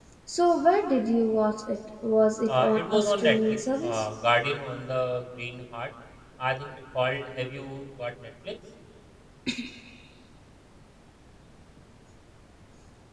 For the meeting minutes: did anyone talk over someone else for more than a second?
Yes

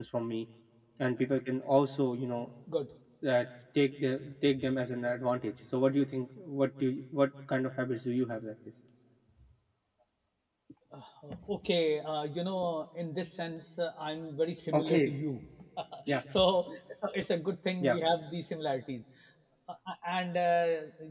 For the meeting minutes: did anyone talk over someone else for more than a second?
No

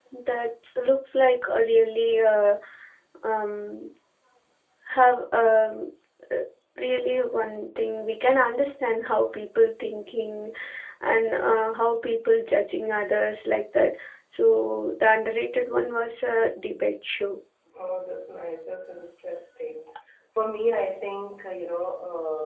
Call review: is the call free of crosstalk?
Yes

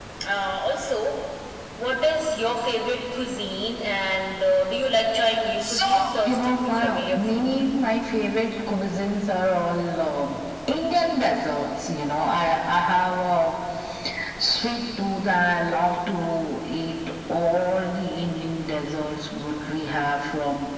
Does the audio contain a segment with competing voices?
Yes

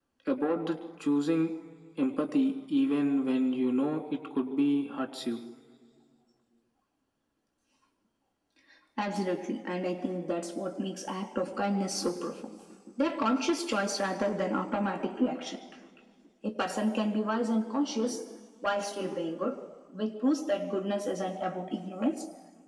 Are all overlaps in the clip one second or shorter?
Yes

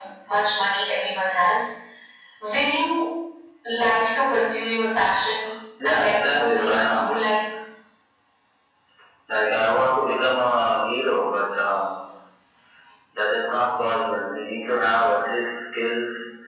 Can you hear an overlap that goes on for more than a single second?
Yes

